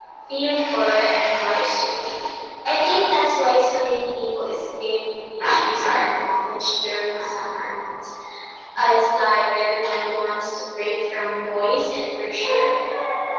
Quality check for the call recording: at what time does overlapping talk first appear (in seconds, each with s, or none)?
none